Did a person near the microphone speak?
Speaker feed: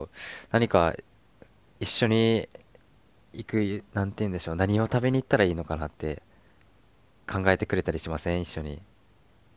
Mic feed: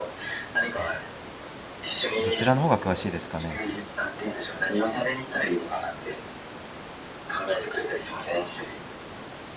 Yes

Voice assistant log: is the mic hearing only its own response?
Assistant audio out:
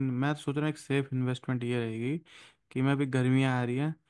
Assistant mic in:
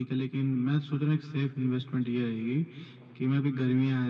Yes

